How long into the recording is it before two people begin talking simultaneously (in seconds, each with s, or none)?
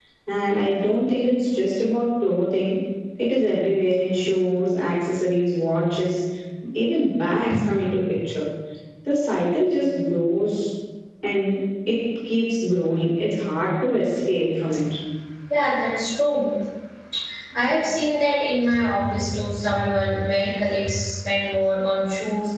none